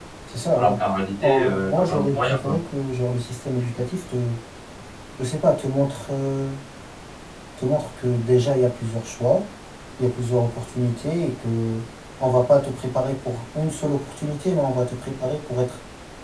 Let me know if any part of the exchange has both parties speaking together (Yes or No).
Yes